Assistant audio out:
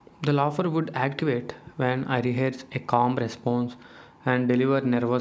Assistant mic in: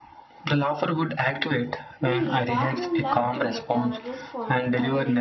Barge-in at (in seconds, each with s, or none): 2.0 s